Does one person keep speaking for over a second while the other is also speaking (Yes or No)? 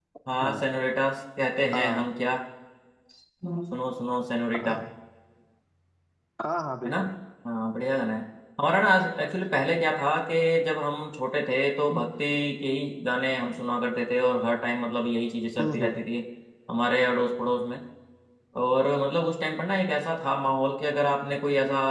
No